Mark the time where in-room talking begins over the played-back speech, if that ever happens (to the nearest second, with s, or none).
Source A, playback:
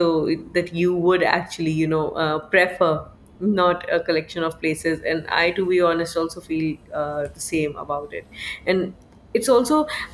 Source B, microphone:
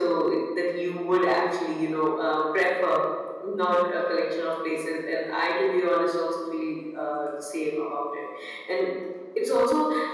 none